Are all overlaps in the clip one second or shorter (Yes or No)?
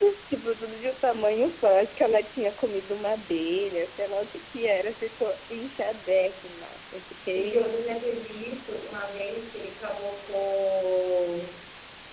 Yes